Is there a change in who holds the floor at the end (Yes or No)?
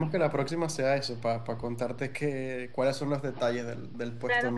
Yes